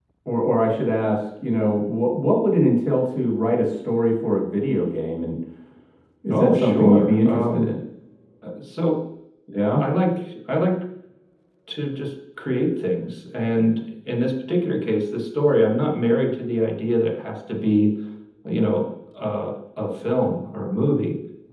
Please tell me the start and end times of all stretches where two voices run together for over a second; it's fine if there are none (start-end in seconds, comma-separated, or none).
6.3-7.7